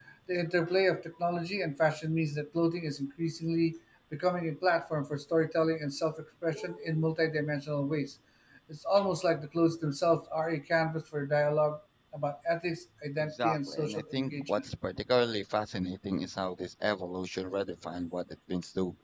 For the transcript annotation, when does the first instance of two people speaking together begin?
13.2 s

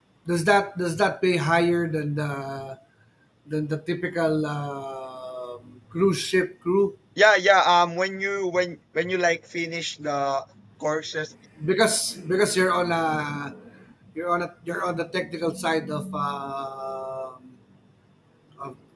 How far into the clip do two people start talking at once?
none

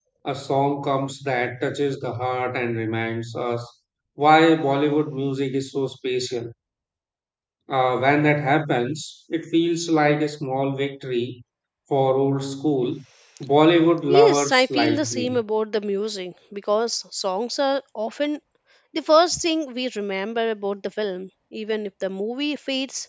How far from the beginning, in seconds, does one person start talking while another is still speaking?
14.1 s

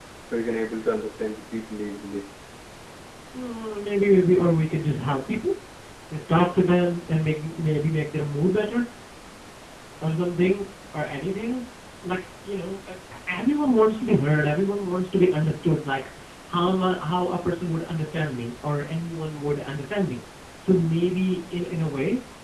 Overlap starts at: none

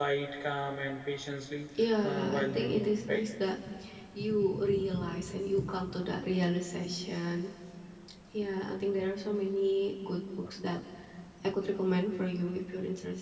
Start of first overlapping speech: 2.0 s

